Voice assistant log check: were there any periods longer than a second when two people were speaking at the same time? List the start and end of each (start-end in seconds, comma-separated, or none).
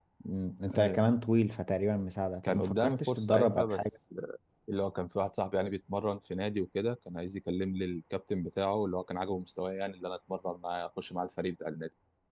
2.5-3.8